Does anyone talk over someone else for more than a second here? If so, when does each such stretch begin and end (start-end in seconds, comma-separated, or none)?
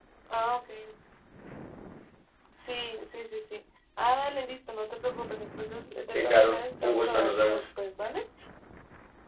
6.1-7.6